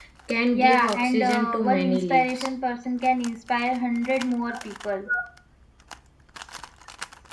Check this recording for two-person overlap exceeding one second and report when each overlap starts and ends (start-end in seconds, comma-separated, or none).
0.5-2.5